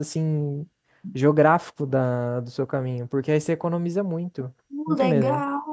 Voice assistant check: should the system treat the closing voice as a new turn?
Yes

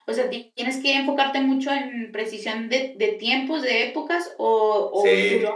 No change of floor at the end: No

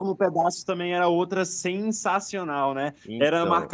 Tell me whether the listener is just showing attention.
Yes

